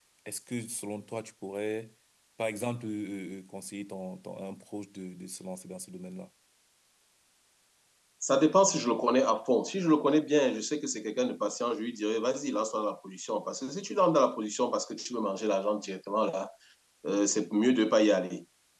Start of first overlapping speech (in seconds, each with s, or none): none